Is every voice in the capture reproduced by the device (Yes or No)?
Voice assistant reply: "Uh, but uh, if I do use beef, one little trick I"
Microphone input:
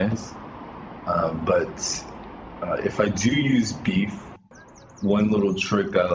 Yes